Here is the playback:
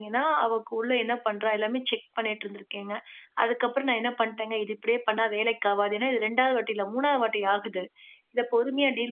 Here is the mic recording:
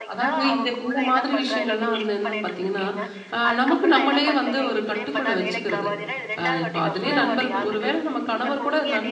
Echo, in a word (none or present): present